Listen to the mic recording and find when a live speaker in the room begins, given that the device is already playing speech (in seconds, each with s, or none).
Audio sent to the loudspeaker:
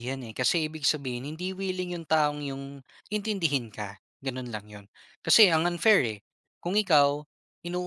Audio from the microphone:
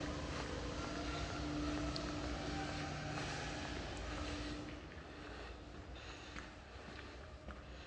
none